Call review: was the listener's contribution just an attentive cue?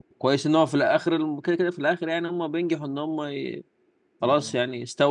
Yes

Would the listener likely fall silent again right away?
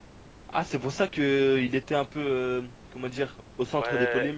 No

